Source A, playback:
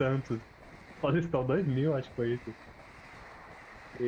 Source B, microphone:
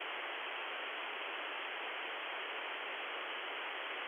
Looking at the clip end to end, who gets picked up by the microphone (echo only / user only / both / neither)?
neither